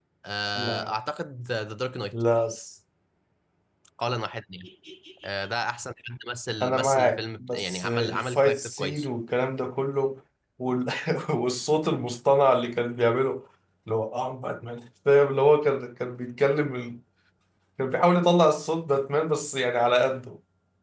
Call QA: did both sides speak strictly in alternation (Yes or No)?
No